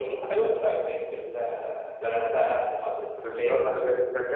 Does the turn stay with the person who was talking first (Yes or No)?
No